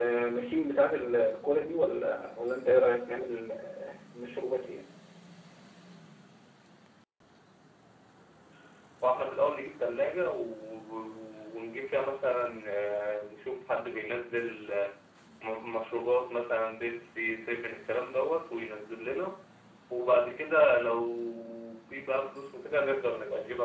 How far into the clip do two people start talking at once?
none

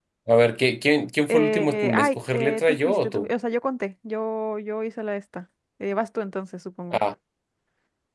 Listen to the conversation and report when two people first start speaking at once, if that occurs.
1.3 s

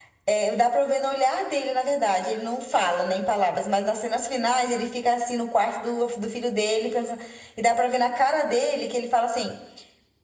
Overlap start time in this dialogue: none

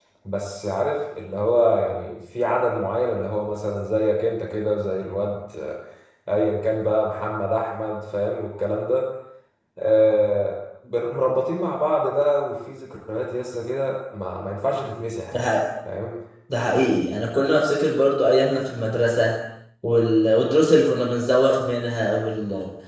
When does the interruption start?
none

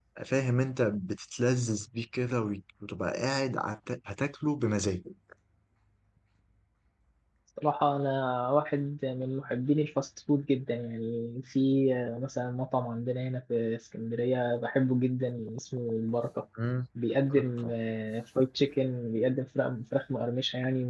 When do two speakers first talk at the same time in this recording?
none

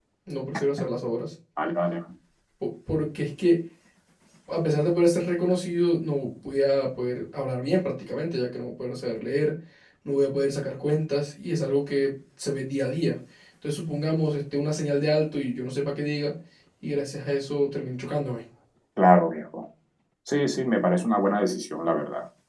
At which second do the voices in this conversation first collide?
none

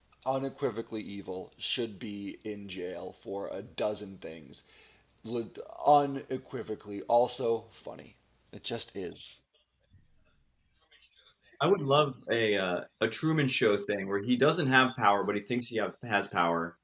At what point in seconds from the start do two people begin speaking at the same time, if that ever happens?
none

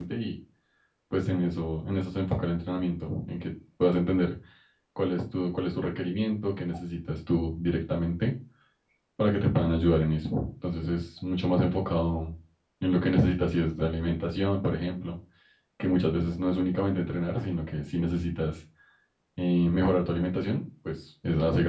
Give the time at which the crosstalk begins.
none

